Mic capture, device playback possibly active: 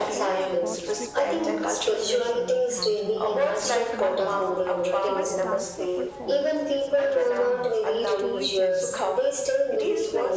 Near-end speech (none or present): present